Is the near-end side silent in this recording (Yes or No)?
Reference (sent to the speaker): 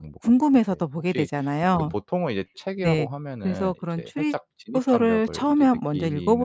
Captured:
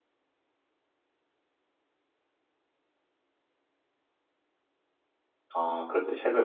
No